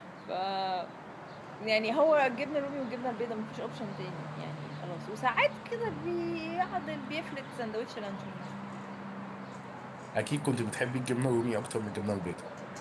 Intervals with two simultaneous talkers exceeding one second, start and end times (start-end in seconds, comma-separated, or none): none